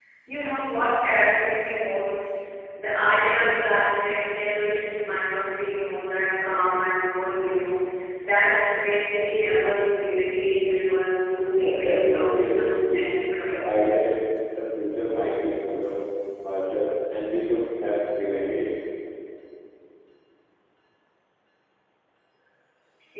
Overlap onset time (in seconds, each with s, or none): 11.6 s